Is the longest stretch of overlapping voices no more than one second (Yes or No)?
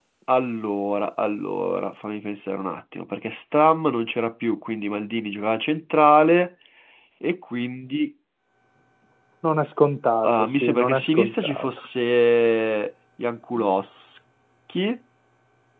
No